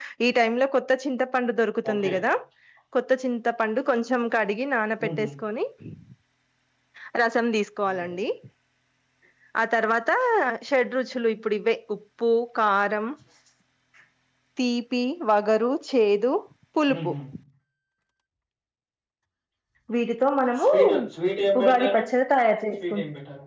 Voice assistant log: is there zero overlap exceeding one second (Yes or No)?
Yes